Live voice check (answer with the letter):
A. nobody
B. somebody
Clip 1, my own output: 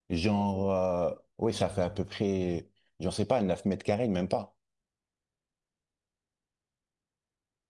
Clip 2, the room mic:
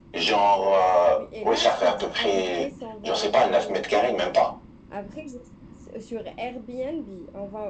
B